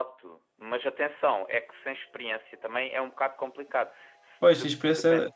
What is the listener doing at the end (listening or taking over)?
taking over